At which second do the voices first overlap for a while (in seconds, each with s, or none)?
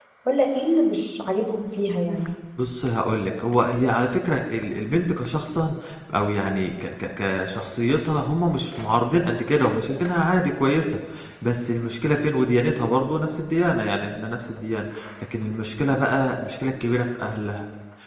none